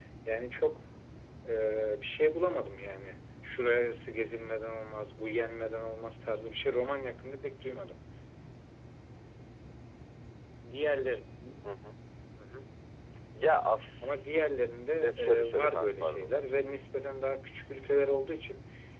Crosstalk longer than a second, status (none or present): present